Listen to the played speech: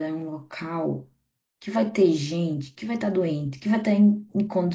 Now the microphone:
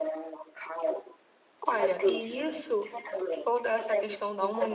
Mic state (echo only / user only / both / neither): both